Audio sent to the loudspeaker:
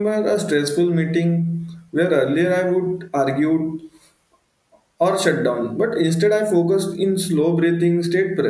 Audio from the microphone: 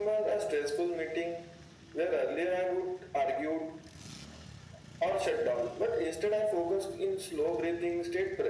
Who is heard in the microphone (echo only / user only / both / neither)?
echo only